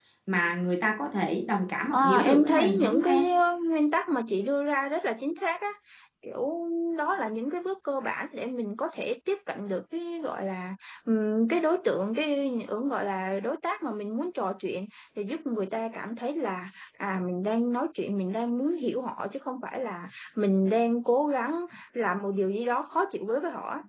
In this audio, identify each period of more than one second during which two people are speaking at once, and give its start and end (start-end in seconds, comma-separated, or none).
1.9-3.2